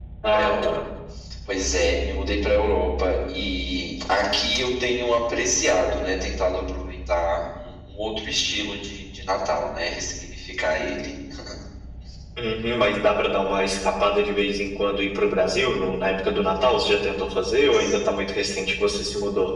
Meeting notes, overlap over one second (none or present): none